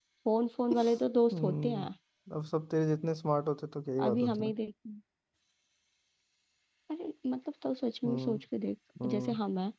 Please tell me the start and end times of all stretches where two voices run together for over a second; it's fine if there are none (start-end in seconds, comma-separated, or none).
none